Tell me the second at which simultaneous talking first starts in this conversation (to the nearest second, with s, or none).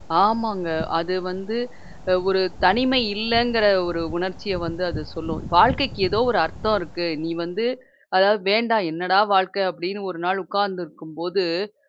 none